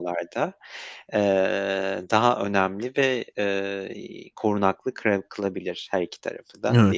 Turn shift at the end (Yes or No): Yes